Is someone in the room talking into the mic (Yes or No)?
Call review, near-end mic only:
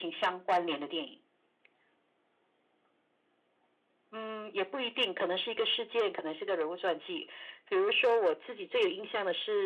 No